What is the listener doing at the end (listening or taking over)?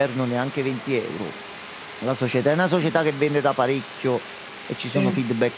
listening